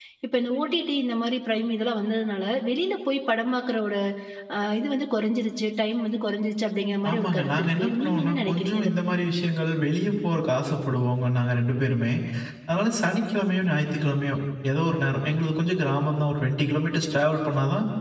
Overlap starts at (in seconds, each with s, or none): 7.0 s